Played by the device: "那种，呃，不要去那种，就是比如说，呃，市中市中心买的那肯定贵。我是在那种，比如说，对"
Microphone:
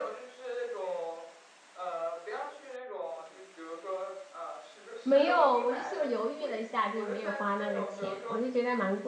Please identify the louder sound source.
user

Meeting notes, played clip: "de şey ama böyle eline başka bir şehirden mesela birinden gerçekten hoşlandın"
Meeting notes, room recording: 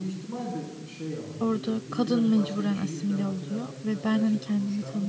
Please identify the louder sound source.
user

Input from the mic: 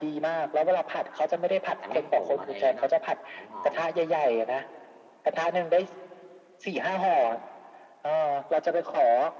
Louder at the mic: echo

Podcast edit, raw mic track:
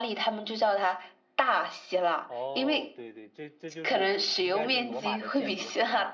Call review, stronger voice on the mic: echo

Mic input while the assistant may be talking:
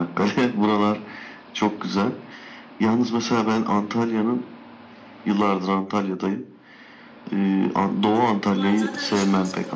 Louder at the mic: echo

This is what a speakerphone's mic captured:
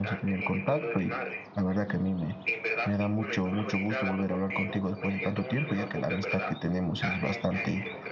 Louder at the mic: user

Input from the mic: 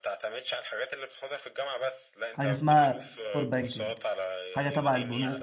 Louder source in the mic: user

